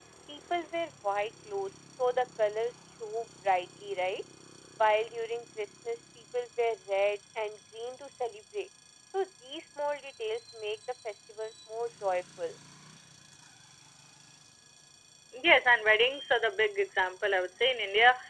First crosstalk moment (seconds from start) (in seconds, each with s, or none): none